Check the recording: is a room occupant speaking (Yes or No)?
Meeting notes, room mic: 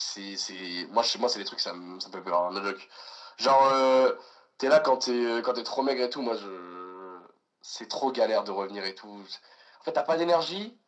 No